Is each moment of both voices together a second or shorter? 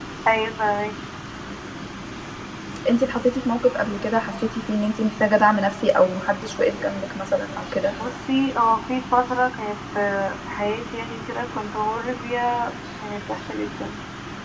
Yes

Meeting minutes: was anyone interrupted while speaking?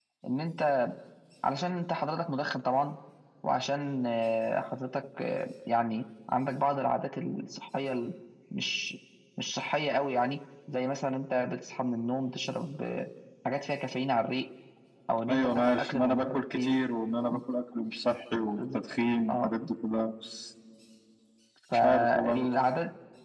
Yes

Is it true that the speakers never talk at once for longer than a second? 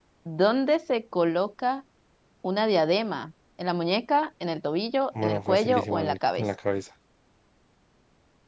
No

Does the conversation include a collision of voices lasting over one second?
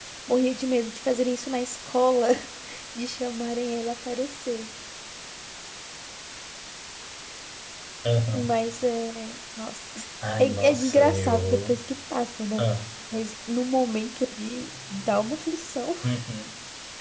Yes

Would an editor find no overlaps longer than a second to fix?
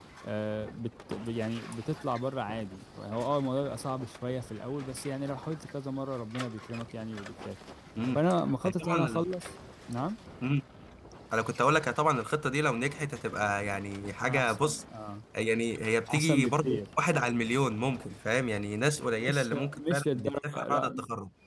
No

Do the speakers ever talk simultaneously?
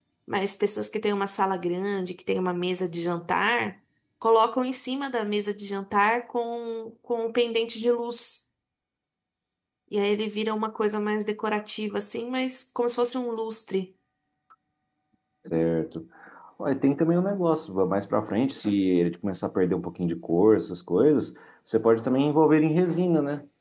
No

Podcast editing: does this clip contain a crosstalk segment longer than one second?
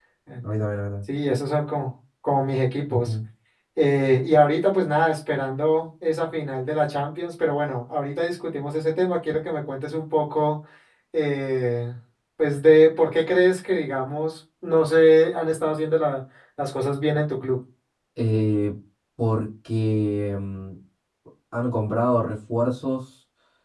No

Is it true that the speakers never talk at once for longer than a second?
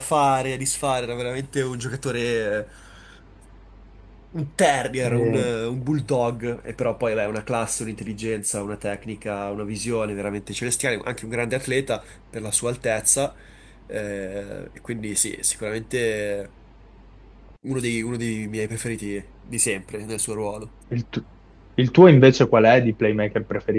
Yes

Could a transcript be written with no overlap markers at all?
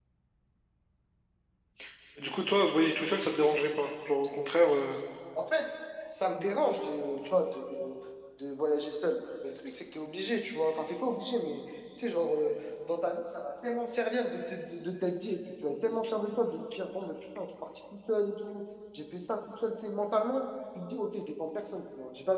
Yes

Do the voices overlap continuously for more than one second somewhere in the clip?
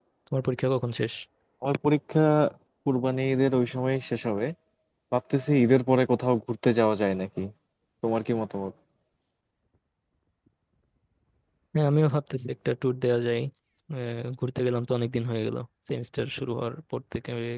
No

